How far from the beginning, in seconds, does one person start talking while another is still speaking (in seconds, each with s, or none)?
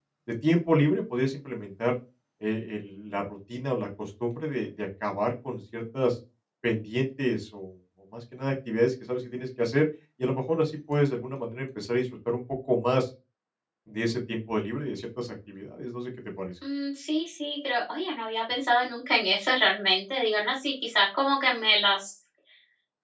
none